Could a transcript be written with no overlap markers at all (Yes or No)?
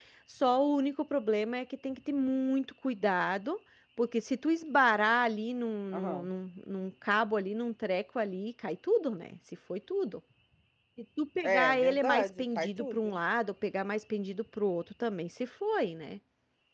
No